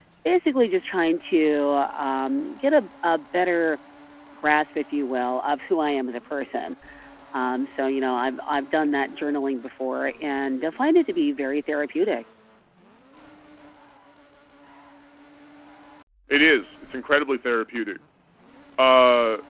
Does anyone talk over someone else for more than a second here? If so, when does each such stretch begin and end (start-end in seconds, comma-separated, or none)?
none